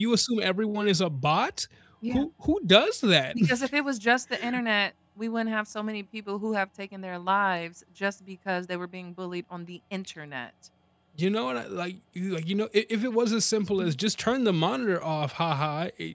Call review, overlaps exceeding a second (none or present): none